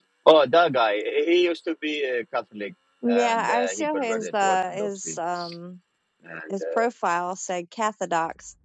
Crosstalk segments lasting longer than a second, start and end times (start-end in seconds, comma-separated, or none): 3.1-5.2